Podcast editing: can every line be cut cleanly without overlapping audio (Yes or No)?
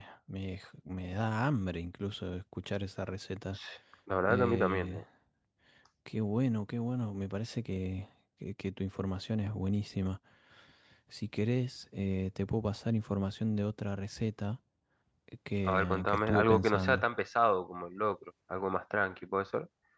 No